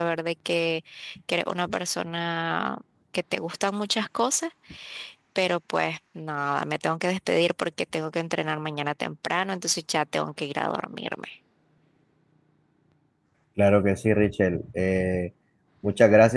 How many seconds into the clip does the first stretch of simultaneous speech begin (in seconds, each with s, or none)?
none